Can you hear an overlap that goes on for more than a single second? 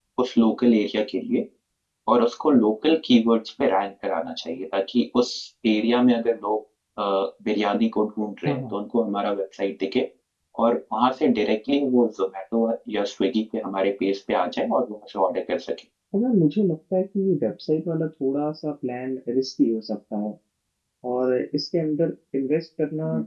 No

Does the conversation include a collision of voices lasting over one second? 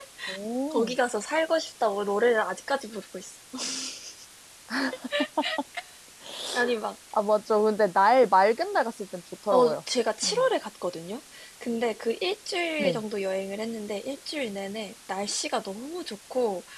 No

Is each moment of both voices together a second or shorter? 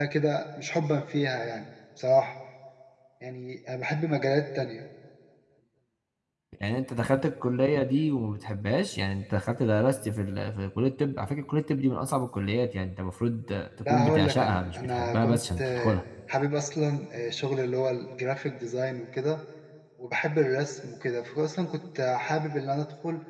No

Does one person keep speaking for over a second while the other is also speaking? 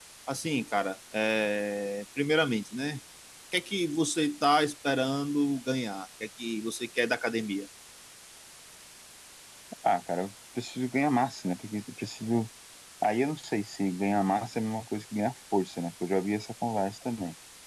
No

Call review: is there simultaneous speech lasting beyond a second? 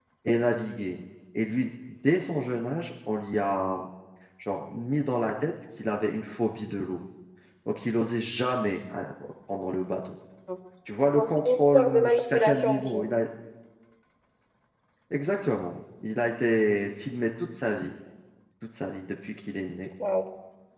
Yes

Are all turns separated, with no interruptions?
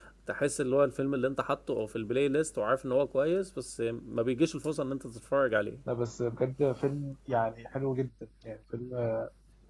Yes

